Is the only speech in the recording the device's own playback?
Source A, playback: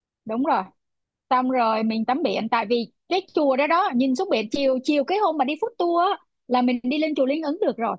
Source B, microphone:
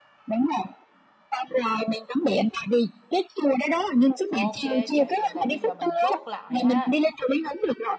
No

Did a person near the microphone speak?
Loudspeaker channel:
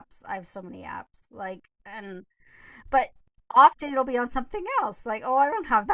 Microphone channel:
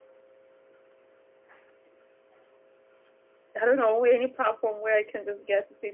Yes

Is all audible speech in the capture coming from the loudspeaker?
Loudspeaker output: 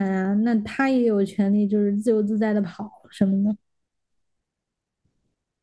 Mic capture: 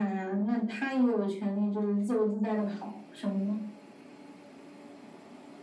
Yes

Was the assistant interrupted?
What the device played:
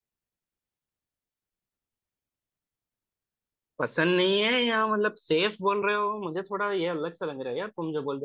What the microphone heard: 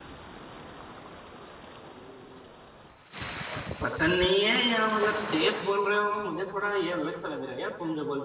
No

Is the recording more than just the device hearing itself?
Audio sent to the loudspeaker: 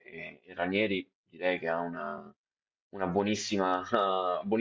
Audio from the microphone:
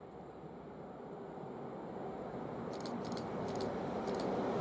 No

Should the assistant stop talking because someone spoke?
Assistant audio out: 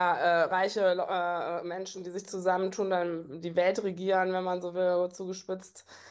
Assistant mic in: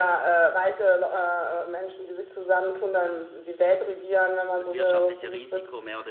Yes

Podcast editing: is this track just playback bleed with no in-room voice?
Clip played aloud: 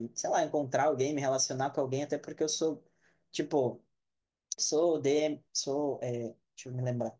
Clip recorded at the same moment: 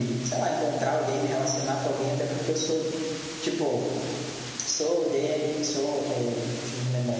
Yes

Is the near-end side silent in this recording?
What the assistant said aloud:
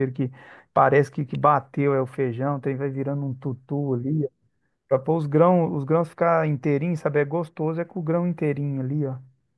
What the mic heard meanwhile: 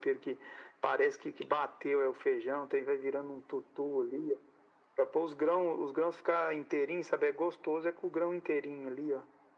Yes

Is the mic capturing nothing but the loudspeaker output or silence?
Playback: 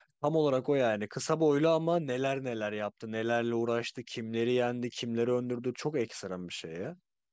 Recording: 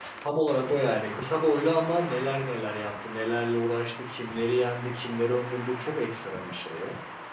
Yes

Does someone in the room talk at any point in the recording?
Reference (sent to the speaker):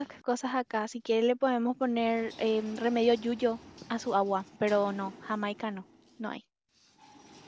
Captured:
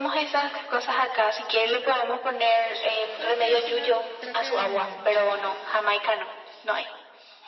Yes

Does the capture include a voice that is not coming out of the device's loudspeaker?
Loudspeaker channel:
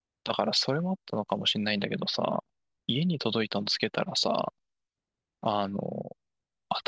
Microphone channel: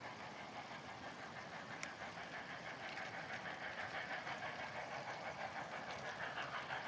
No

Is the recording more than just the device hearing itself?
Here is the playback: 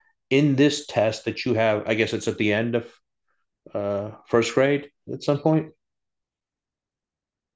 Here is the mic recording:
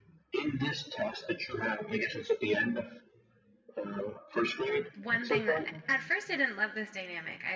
Yes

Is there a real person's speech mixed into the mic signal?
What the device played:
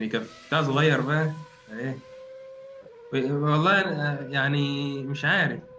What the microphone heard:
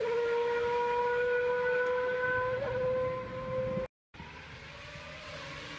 No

